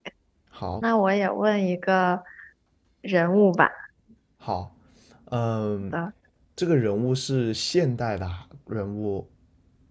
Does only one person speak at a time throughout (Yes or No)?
Yes